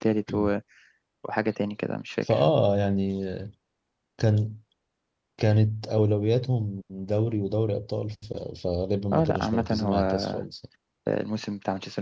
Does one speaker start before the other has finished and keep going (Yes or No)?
Yes